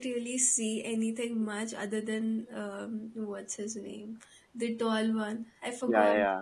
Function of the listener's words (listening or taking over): taking over